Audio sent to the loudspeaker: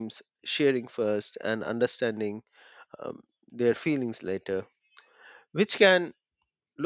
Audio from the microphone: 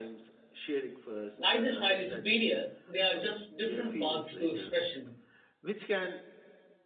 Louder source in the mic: user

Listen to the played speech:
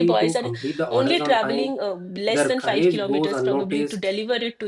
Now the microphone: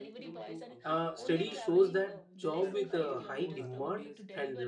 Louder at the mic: user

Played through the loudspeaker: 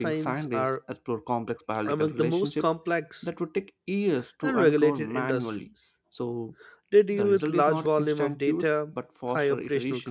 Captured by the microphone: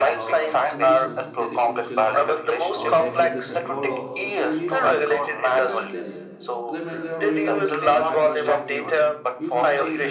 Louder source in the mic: echo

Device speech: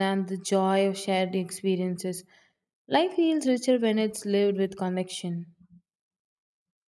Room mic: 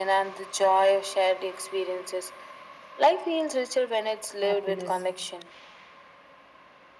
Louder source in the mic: echo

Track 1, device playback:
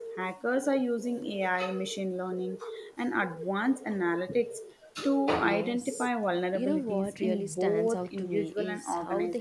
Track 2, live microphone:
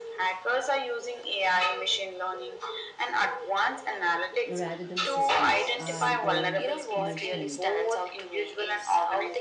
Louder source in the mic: echo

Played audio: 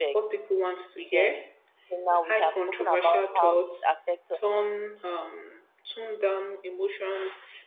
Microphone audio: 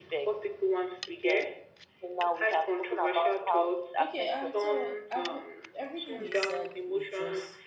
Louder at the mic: echo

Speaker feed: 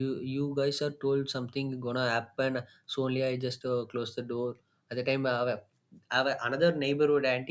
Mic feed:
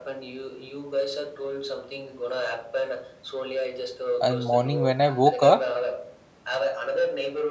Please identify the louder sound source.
user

